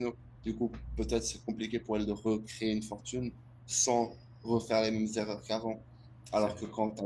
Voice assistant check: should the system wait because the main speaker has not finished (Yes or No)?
Yes